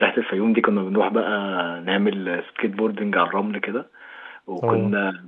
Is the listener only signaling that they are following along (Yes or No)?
Yes